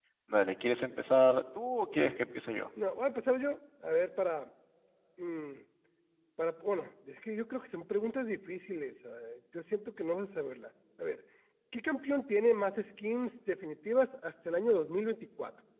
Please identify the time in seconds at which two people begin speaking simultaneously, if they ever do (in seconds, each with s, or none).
none